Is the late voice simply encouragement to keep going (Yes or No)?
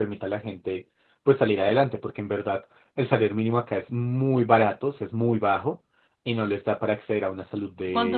No